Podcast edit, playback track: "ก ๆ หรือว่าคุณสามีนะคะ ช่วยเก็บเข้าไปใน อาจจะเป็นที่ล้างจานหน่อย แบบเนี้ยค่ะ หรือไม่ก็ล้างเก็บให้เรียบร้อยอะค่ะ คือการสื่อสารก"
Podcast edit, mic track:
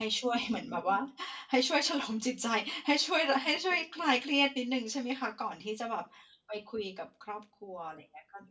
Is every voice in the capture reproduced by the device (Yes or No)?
No